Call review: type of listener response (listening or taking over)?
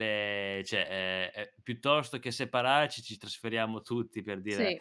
listening